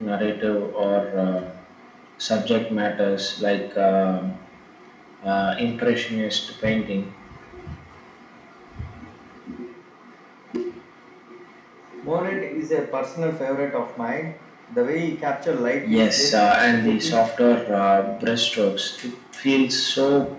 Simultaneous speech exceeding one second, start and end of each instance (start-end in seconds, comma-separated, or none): 15.9-17.2